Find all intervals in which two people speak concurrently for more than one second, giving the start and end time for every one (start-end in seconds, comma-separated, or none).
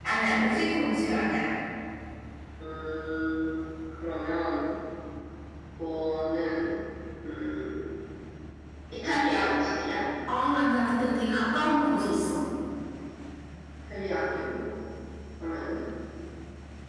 none